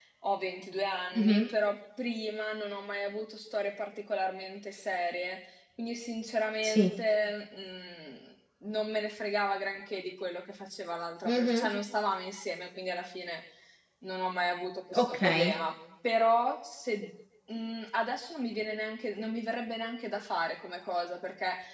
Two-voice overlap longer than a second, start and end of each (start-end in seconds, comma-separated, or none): none